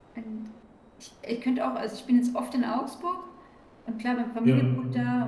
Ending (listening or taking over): listening